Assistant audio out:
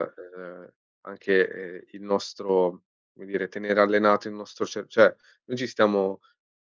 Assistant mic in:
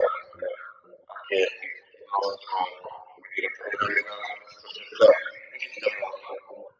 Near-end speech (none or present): none